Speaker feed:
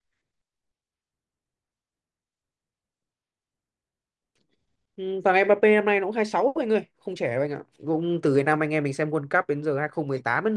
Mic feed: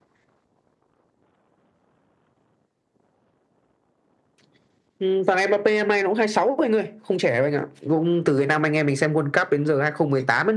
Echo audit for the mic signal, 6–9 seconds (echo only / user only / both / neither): echo only